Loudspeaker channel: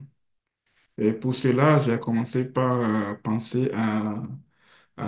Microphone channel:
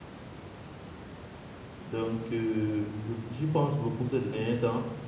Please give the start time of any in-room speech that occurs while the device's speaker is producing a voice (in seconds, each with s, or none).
1.8 s